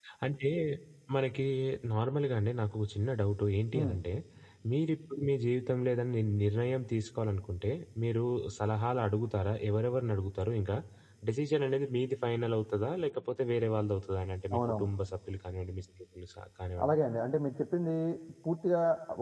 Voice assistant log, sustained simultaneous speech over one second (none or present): none